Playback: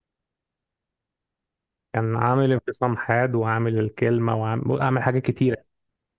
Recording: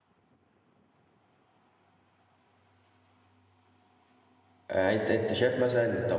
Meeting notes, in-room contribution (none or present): present